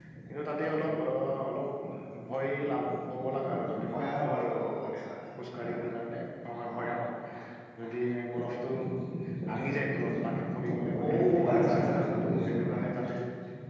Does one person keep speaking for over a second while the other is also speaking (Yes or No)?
Yes